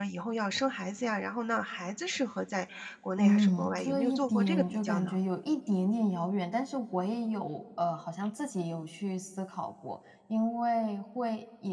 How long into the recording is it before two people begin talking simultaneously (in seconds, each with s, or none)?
3.1 s